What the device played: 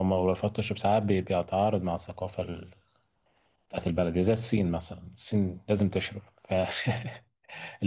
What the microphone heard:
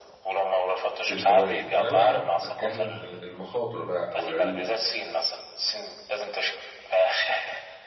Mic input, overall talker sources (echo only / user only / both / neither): both